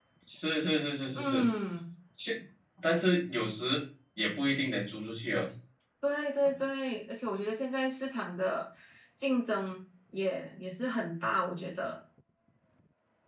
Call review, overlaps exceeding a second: none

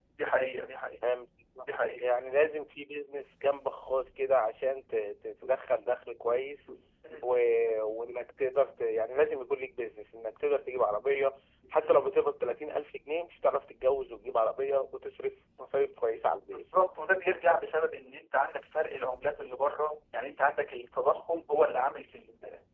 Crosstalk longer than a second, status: none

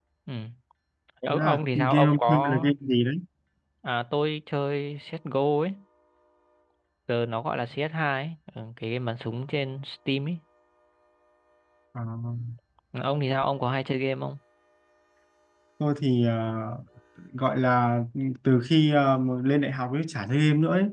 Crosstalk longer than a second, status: present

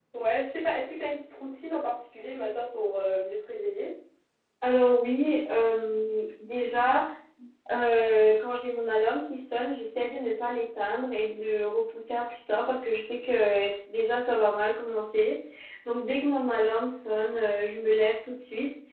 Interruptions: none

